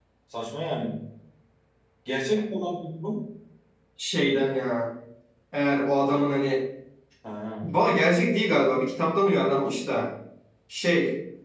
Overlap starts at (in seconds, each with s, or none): none